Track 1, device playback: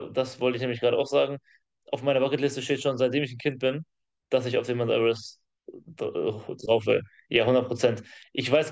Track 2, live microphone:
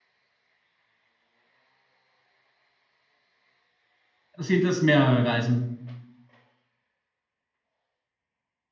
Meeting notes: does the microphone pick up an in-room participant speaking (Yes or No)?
Yes